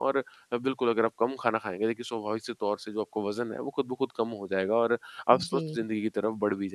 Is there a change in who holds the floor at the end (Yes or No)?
No